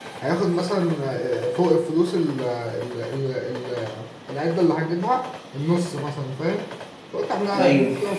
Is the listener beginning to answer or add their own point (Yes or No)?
No